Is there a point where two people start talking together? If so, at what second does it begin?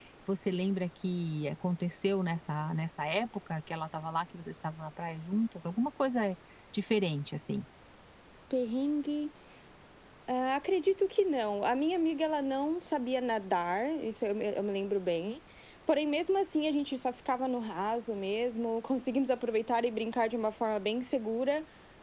none

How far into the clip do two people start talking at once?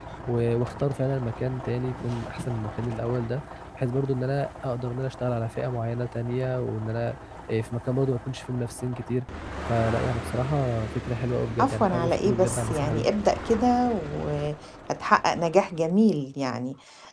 12 s

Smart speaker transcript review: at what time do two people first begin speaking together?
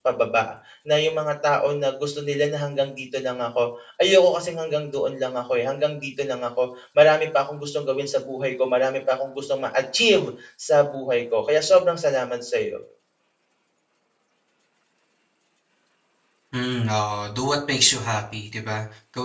none

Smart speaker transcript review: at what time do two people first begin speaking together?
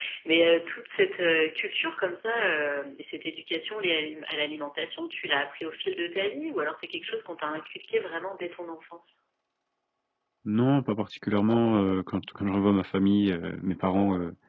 none

